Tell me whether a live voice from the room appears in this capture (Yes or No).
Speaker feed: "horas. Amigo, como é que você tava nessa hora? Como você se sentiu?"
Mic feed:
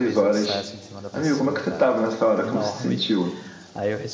Yes